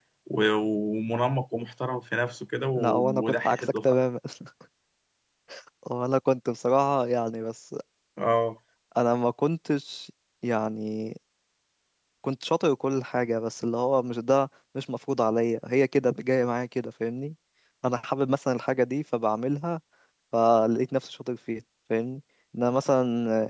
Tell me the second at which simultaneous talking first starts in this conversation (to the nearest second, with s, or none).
3 s